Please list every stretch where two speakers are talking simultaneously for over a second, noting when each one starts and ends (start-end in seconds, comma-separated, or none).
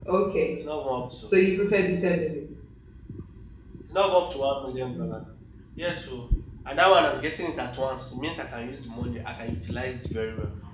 none